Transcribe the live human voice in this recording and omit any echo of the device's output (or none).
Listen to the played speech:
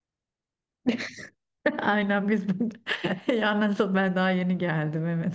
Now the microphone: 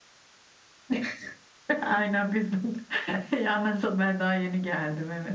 none